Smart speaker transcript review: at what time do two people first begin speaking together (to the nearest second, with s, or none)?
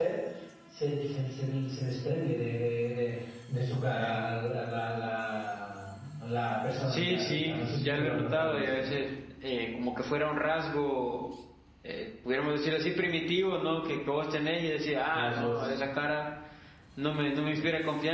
7 s